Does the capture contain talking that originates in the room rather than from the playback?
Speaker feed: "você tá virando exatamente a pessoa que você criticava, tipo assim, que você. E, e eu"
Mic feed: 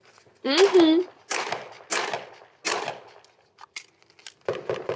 Yes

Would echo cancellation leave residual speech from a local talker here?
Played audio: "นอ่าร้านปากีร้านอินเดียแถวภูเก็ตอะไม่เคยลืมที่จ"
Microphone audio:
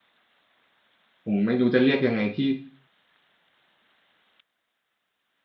Yes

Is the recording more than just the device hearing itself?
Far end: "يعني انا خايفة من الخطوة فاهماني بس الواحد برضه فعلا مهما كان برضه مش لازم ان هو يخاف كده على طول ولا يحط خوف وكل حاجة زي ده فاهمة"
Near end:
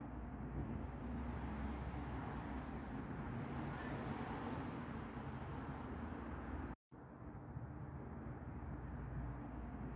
No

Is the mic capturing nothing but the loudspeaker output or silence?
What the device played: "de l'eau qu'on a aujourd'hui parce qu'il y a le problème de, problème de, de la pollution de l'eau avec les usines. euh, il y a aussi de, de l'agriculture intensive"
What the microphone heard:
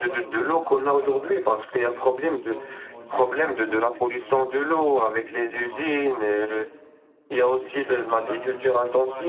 No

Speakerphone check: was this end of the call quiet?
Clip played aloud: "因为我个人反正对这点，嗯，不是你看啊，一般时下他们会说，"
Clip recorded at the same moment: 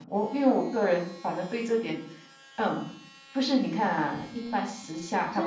No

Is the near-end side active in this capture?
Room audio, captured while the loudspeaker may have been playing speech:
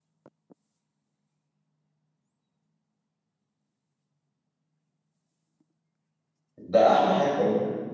Yes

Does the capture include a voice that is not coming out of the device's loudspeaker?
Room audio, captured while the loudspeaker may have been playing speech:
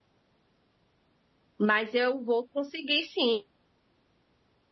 Yes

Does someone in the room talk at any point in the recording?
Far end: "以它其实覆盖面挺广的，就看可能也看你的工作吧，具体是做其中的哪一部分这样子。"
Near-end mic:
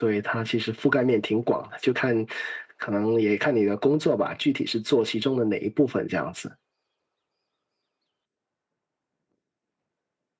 No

